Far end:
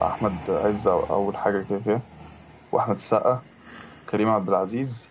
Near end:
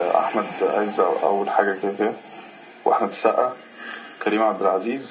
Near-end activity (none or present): none